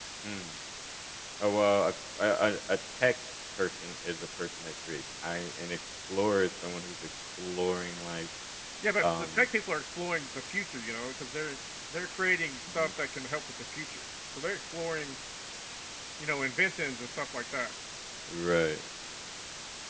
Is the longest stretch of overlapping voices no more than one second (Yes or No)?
Yes